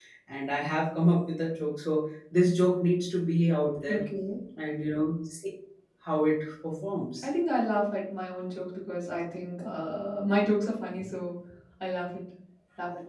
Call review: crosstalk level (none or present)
none